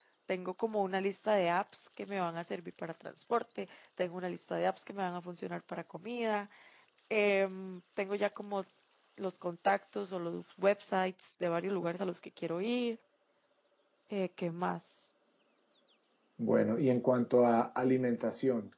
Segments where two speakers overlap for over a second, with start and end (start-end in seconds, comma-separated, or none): none